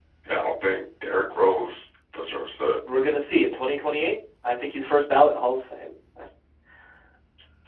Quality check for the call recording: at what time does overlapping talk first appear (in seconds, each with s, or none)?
none